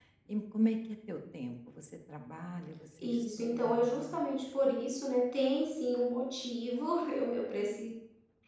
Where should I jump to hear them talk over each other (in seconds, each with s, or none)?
3.0 s